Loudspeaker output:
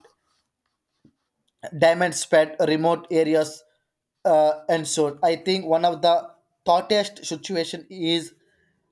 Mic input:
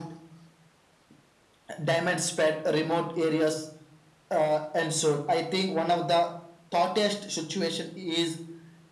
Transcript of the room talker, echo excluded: none

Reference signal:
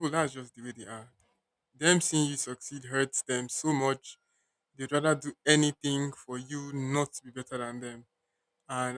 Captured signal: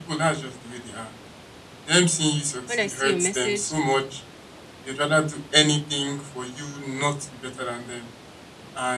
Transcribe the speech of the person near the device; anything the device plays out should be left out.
when I see your message,

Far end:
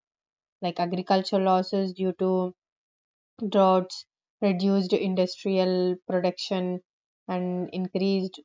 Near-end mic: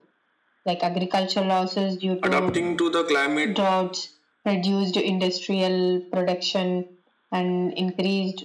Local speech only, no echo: Adapting to the climate

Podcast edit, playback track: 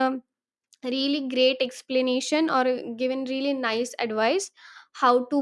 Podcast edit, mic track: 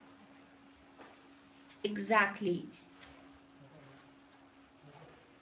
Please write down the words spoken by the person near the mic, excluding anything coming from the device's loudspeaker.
Exactly.

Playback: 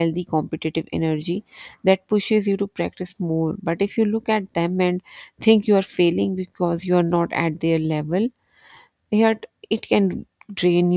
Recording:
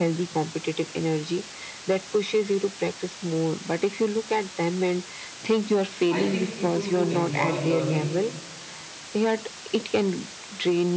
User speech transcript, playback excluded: I think people who enjoy learning

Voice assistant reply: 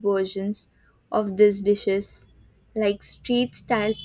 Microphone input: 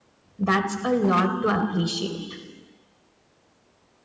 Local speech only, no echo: that's a lot to appreciate.

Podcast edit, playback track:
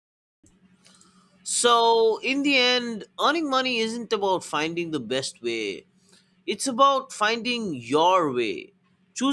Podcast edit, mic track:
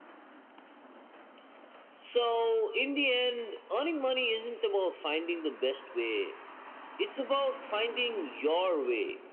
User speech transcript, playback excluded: none

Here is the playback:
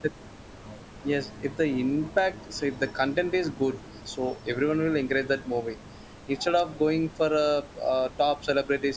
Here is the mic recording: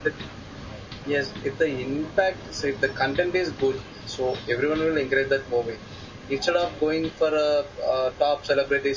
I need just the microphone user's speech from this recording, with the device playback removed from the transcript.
none

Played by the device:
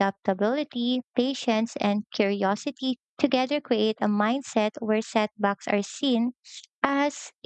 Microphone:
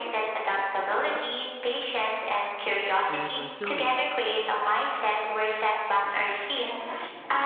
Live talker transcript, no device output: and resilience

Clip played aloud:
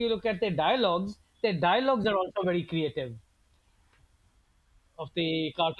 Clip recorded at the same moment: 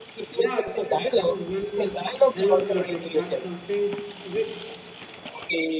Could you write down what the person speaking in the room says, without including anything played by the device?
Yeah, that is, that is one hell of a classic. That's something which

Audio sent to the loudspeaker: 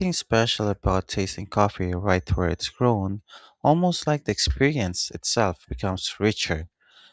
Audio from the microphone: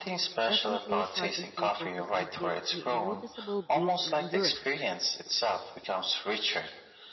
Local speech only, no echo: definitely sharpens my focus and gives me a noticeable boost in endurance.

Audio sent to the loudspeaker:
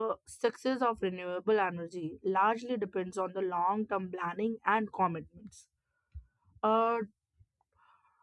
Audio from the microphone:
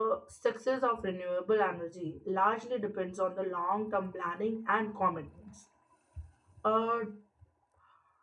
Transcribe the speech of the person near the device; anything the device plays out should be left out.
none

